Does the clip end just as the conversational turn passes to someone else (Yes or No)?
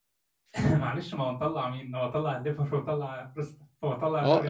Yes